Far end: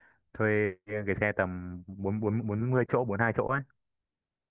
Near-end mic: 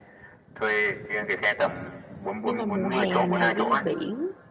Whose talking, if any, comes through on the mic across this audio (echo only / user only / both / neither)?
both